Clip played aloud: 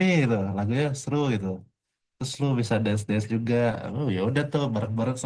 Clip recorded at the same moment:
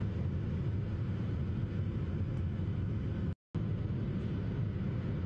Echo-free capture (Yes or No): Yes